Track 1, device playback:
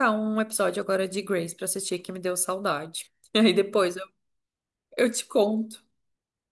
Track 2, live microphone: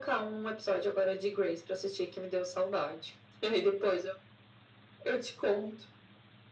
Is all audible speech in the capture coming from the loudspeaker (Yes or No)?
Yes